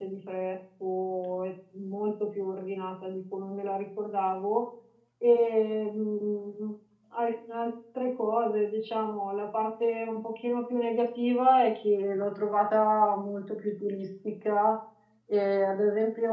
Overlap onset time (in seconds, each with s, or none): none